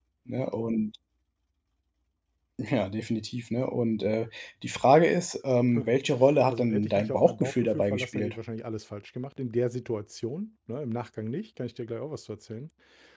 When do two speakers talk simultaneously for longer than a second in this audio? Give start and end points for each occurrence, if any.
6.5-8.3

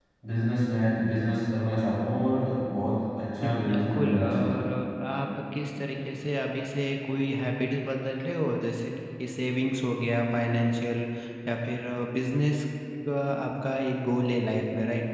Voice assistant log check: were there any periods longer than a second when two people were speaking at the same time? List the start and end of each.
3.4-4.7

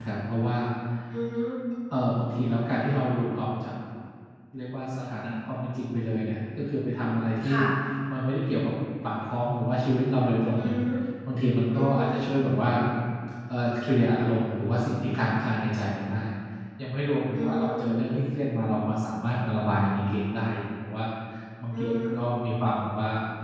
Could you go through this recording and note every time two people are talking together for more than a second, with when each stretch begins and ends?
none

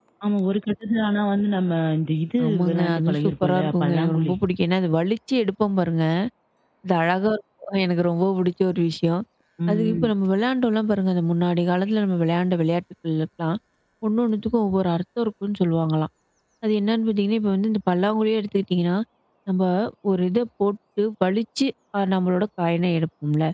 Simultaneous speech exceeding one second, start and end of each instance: 2.5-4.3

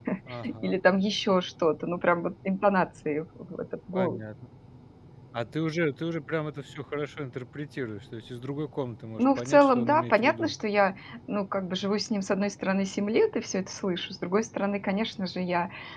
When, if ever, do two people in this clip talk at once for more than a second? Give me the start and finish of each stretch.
9.2-10.5

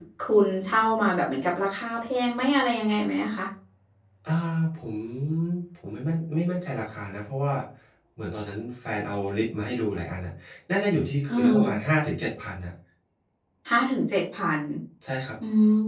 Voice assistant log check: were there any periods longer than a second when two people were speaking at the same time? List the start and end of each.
none

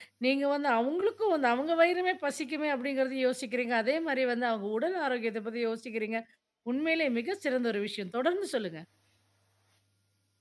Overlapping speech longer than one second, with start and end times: none

